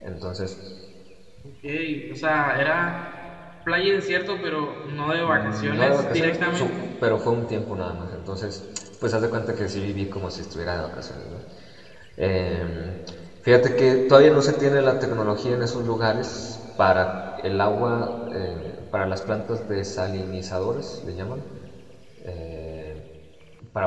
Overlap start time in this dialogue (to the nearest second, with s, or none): 5 s